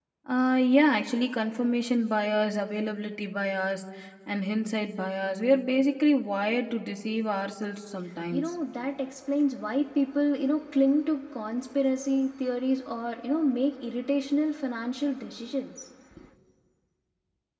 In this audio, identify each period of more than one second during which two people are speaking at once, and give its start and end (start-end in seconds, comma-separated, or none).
none